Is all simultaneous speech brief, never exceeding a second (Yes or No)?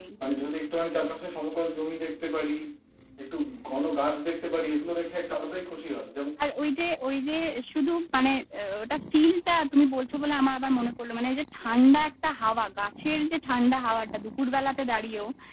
Yes